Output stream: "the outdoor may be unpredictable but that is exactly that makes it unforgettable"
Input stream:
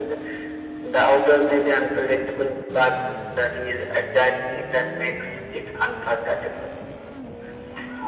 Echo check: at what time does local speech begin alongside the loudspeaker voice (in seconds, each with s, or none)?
none